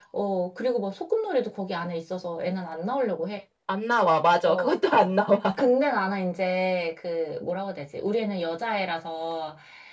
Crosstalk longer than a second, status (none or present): none